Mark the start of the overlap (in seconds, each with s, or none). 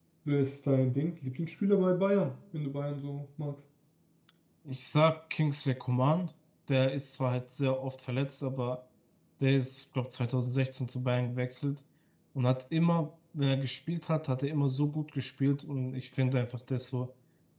none